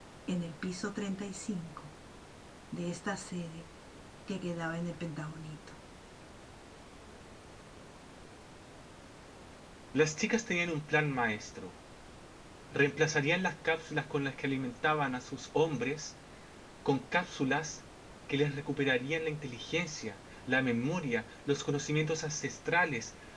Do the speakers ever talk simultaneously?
No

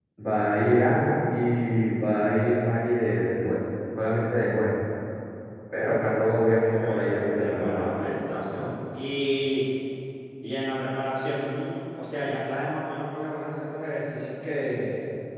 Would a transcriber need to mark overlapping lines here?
Yes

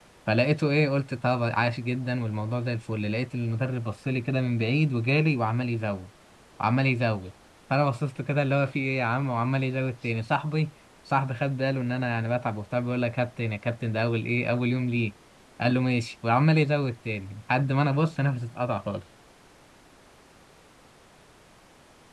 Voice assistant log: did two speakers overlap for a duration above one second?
No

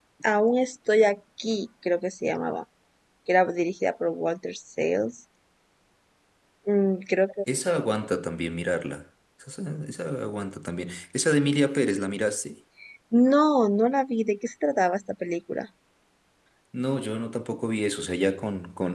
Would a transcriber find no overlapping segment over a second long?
Yes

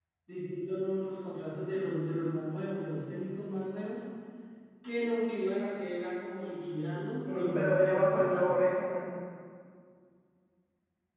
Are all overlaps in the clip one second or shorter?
No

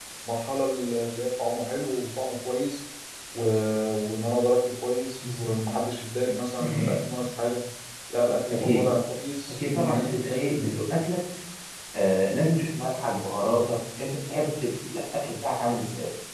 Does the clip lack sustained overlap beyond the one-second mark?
No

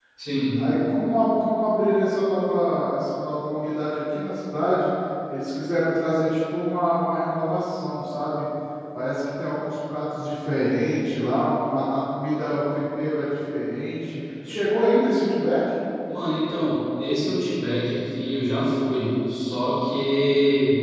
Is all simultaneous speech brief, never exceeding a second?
Yes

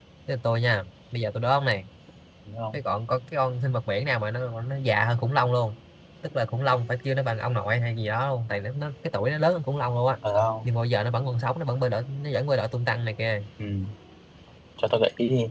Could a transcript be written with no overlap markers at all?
Yes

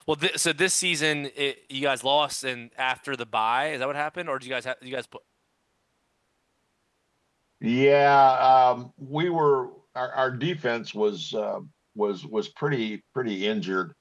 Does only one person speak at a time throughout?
Yes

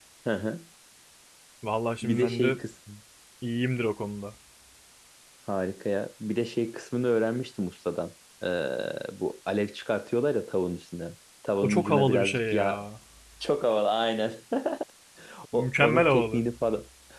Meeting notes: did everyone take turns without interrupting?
No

